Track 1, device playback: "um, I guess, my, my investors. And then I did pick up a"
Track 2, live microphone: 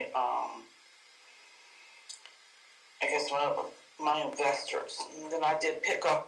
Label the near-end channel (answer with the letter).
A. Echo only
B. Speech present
A